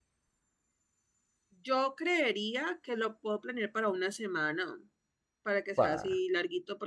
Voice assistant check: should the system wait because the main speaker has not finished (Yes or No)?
Yes